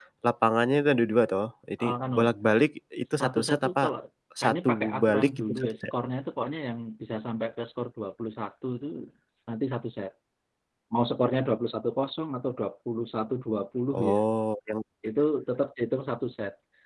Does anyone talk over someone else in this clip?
Yes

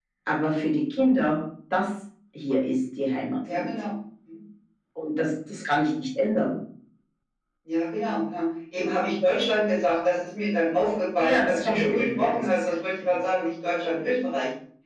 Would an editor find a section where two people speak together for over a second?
Yes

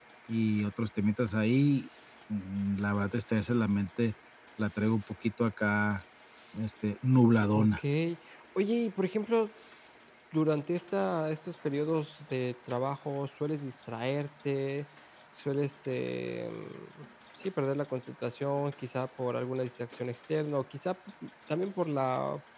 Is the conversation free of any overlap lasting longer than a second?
Yes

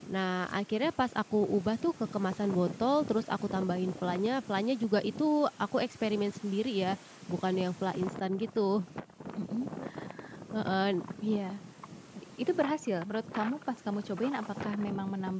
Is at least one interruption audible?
No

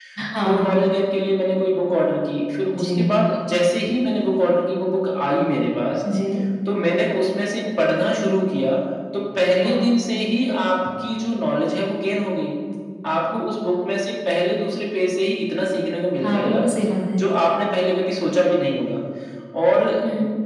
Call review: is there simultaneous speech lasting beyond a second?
No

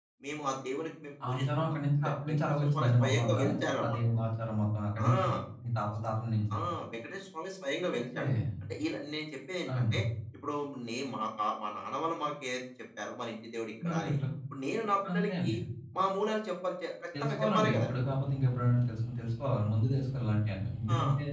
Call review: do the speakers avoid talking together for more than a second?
No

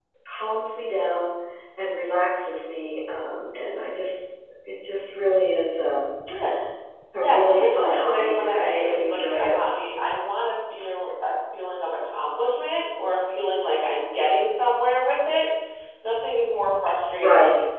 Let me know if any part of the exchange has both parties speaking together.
Yes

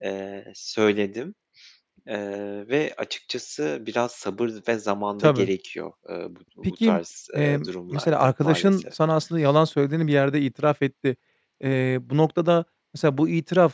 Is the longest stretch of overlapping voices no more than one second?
No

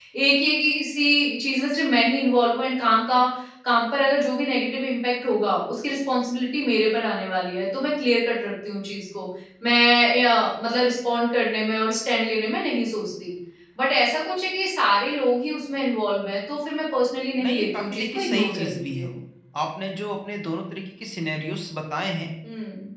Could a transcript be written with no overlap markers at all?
No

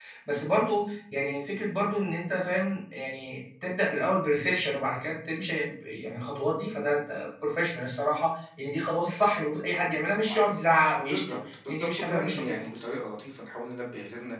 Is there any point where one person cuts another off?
Yes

